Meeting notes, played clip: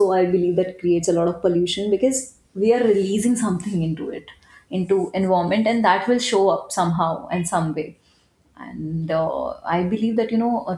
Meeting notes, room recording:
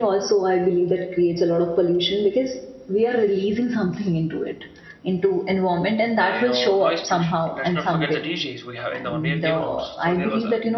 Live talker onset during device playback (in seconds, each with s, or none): 6.2 s